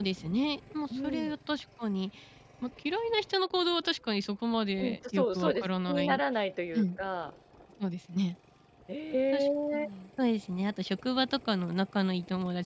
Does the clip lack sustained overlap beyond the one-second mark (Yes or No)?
No